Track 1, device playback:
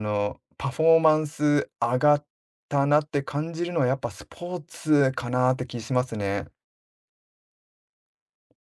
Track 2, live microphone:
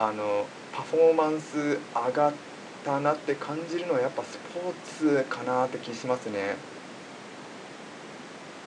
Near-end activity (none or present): none